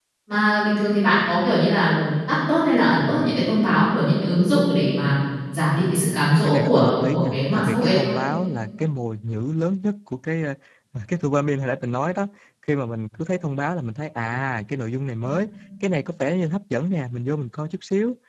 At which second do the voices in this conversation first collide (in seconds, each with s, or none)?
6.4 s